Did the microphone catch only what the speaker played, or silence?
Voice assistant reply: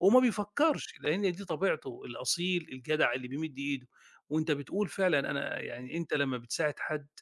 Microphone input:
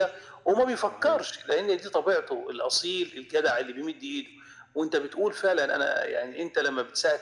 No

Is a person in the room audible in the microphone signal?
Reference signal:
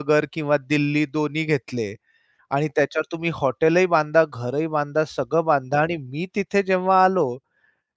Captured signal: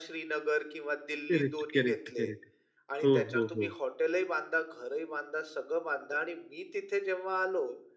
Yes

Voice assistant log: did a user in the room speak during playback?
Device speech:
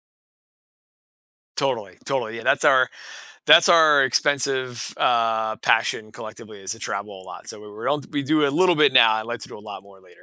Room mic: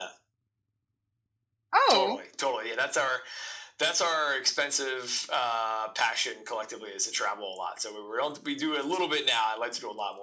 Yes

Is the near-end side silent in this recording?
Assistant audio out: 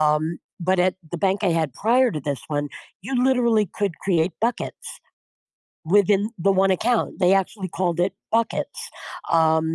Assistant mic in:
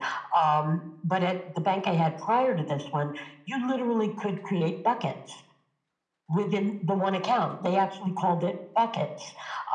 Yes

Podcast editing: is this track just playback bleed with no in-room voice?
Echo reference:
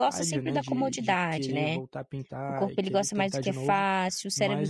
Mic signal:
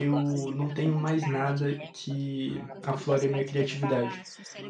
No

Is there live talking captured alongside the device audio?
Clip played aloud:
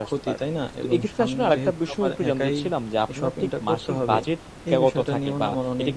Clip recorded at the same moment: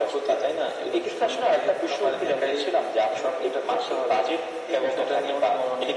No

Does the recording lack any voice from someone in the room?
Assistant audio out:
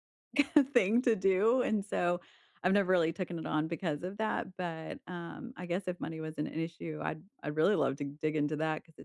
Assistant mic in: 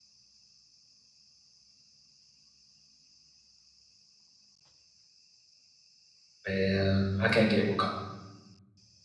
No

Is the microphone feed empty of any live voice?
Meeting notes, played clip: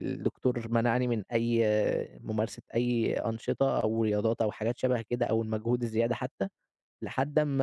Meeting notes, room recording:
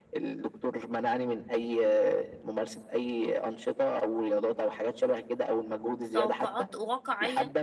No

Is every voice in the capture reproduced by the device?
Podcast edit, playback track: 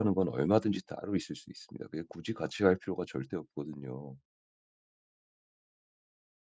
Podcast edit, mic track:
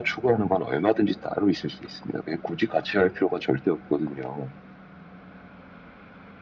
Yes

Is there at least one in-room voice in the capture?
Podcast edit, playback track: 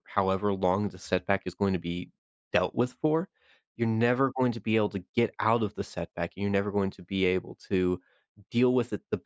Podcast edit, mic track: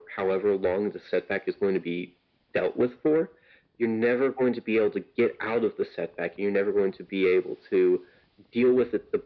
No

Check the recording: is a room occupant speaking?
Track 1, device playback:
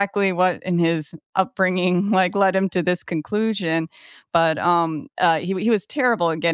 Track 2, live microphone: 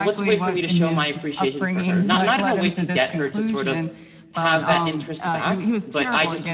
Yes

